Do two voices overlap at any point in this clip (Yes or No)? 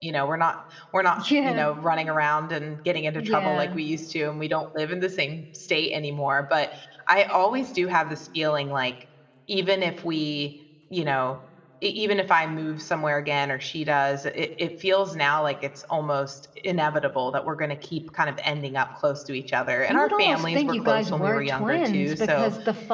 Yes